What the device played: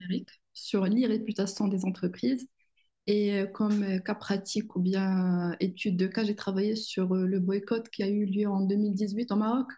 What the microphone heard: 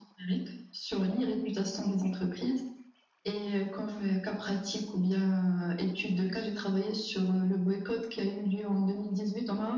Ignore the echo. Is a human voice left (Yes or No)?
No